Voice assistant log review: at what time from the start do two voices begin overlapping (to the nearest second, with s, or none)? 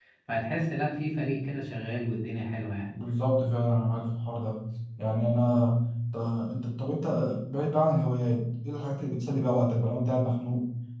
none